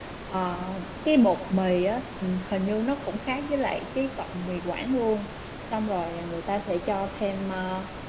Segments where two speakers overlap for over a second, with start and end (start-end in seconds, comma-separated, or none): none